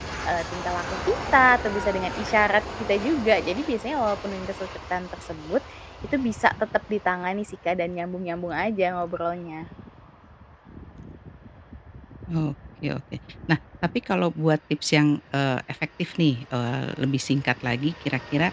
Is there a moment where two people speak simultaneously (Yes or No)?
No